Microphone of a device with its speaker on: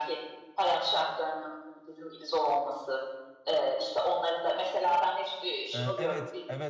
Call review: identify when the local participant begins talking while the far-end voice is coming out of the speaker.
6 s

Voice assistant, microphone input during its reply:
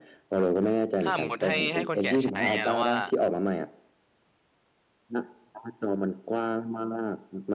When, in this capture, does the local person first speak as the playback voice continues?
1 s

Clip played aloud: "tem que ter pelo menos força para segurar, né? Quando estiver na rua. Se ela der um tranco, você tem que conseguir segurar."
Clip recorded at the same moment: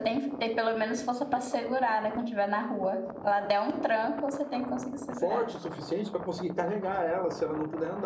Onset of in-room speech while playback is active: 5 s

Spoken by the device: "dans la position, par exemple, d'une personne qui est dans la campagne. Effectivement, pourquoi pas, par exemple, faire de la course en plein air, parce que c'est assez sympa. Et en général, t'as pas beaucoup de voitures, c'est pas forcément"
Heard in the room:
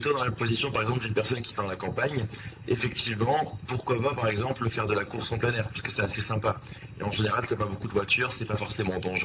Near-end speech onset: none

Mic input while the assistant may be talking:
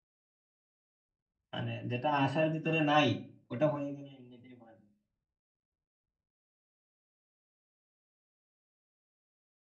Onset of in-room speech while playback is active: 2 s

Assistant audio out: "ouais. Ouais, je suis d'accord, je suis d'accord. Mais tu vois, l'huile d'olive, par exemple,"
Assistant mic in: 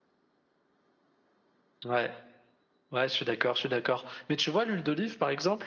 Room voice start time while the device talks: none

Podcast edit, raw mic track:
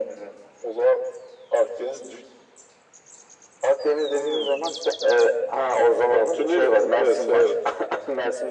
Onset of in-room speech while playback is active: none

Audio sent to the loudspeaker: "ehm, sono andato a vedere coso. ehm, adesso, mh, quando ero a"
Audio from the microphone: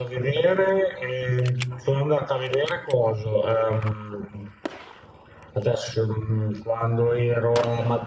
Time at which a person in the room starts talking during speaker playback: none

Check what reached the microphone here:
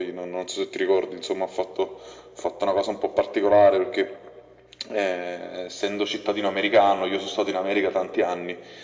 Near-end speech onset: none

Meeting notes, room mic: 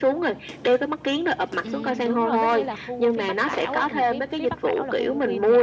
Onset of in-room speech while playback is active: 2 s

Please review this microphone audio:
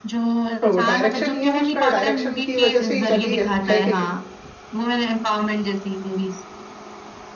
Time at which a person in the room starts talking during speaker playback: 0 s

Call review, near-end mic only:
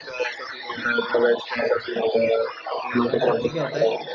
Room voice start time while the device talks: 3 s

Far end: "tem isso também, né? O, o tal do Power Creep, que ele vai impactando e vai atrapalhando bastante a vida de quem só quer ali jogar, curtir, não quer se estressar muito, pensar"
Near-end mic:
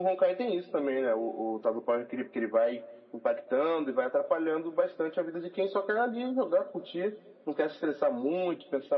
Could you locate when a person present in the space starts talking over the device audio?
none

